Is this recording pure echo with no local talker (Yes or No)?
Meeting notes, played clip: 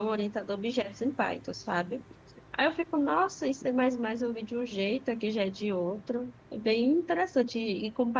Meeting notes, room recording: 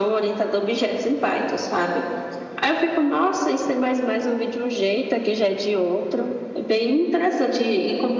Yes